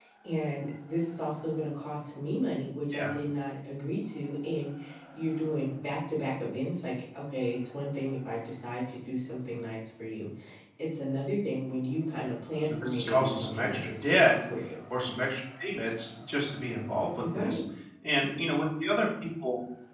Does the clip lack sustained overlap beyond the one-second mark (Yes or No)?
No